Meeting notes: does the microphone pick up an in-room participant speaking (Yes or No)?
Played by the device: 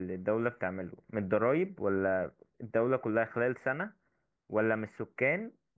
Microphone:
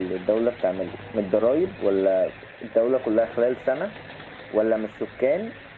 No